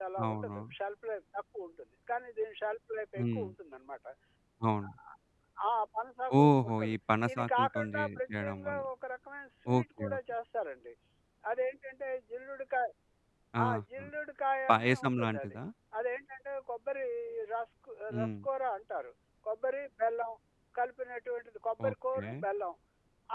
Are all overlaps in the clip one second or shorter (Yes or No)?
No